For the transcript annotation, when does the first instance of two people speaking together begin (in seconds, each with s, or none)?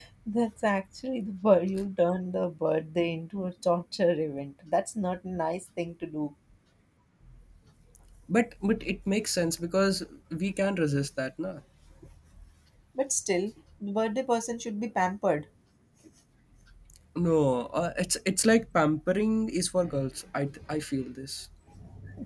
none